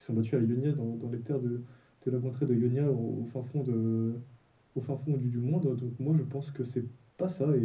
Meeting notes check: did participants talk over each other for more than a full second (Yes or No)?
No